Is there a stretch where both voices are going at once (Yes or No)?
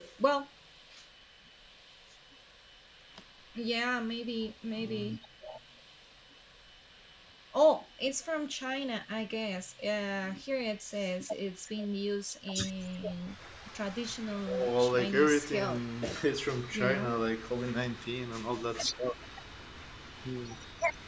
Yes